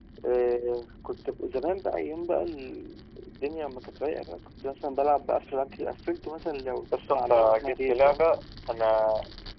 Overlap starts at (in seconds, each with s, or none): 6.9 s